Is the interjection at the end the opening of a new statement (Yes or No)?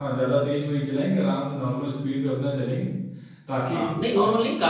Yes